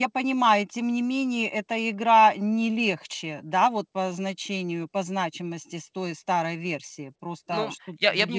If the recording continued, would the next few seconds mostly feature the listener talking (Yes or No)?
Yes